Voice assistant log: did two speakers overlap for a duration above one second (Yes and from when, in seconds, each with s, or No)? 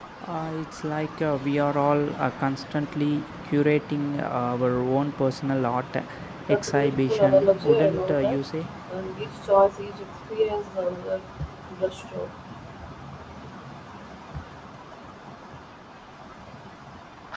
Yes, from 6.5 s